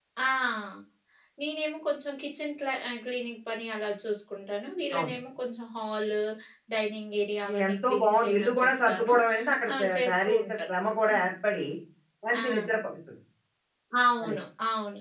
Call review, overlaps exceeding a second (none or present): present